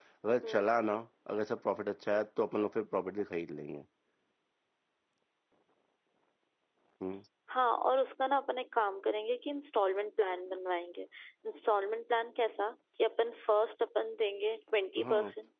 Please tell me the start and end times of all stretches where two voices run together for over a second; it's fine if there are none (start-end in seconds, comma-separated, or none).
none